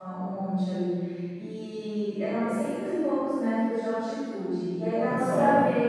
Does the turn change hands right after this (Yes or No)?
No